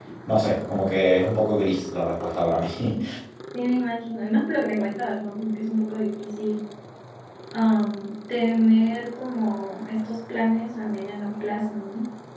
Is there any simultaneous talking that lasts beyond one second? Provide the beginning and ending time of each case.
none

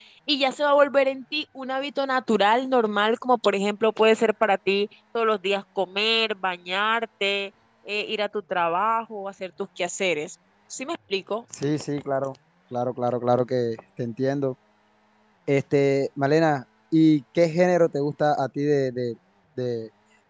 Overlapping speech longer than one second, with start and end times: none

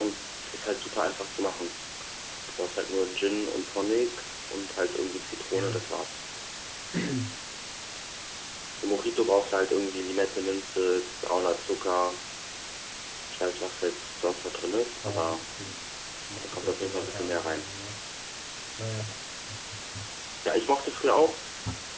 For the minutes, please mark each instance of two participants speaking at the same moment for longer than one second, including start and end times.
16.4-17.6

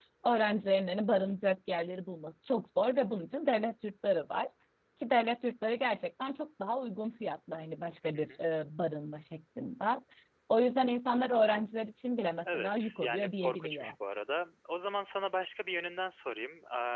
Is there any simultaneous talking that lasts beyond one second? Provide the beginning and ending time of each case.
12.4-13.9

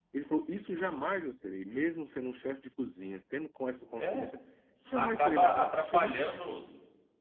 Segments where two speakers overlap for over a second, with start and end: 4.9-6.4

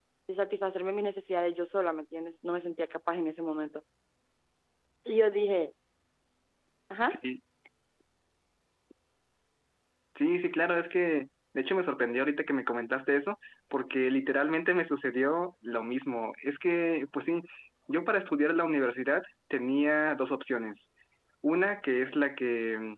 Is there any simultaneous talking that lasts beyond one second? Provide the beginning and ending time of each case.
none

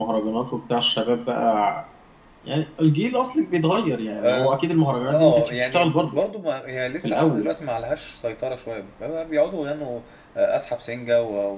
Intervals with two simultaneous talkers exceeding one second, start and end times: 4.8-6.2

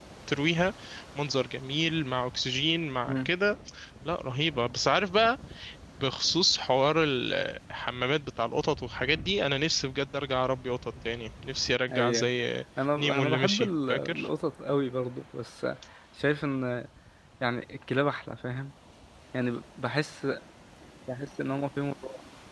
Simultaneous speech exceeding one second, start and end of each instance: 13.0-14.3

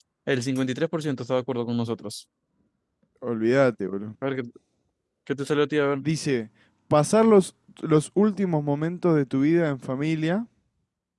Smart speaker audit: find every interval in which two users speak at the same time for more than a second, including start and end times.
none

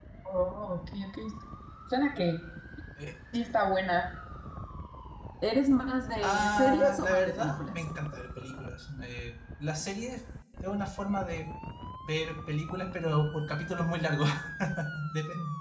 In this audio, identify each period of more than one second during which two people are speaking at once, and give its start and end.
6.2-7.8

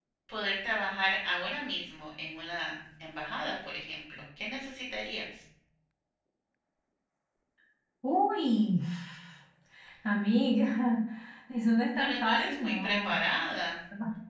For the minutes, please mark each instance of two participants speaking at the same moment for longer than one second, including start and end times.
12.0-13.2

